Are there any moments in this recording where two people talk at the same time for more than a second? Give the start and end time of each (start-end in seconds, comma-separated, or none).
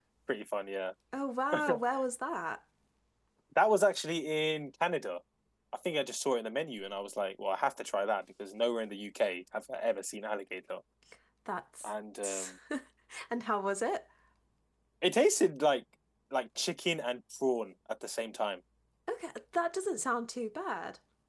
none